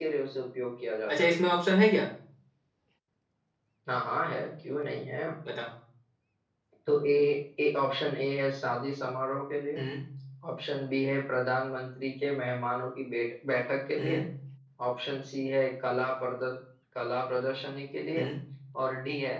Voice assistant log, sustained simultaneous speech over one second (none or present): none